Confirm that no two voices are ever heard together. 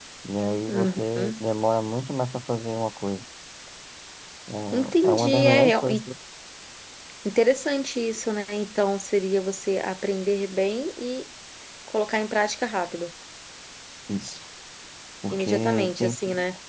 No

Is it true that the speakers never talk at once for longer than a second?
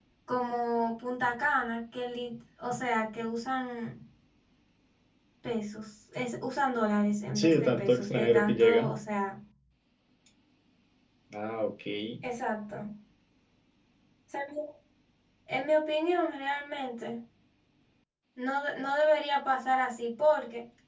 No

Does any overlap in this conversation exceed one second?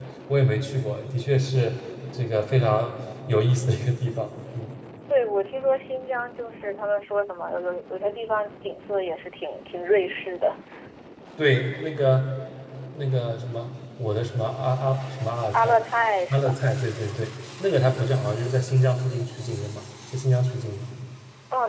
No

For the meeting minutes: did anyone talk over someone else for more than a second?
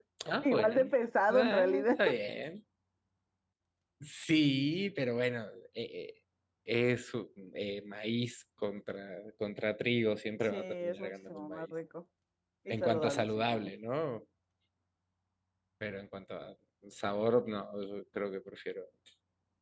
Yes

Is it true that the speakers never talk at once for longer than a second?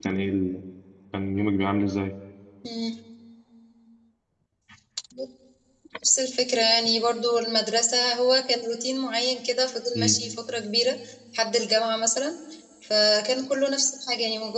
Yes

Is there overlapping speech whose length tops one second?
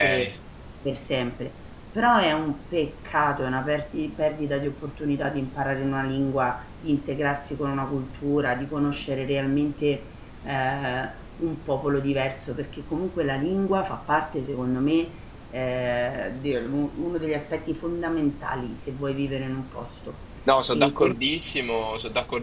No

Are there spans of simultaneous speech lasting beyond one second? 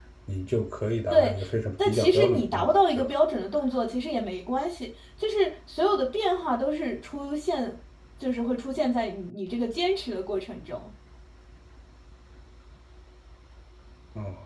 Yes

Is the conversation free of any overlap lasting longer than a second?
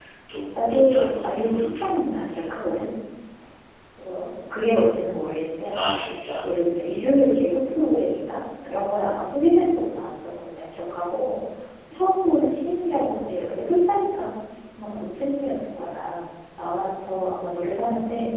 No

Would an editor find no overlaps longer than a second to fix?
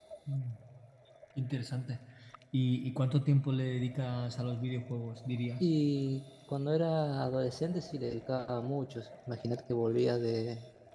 Yes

